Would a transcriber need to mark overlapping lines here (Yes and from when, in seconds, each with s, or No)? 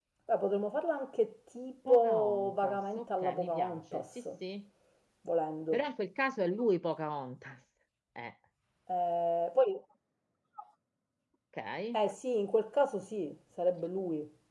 Yes, from 1.9 s